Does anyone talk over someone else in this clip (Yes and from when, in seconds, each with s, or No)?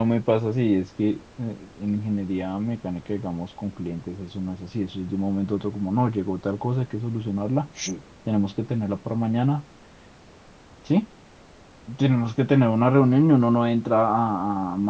No